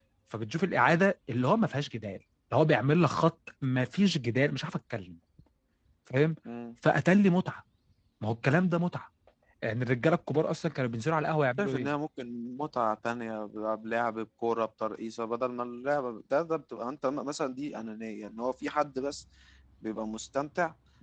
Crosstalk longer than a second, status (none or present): none